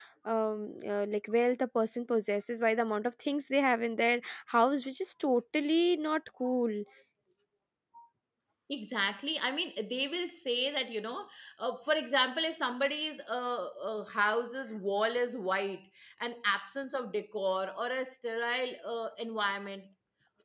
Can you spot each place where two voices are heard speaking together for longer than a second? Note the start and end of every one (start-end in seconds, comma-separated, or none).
none